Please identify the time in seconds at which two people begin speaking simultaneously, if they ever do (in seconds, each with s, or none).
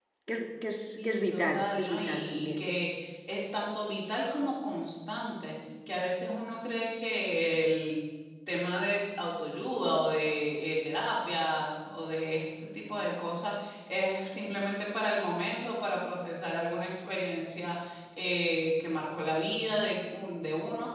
1.0 s